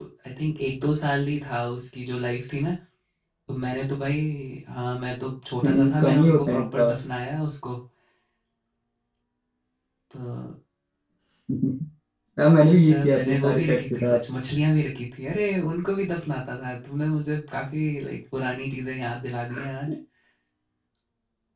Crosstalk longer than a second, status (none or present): present